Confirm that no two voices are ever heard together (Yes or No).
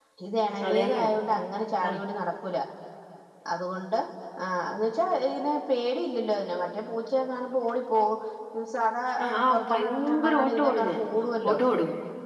No